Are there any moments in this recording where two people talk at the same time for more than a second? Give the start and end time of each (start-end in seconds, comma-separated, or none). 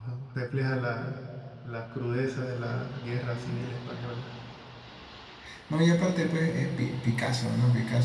none